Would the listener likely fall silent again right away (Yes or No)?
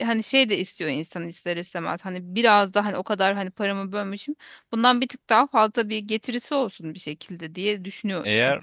No